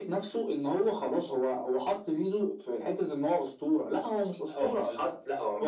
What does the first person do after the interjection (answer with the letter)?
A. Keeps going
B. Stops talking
B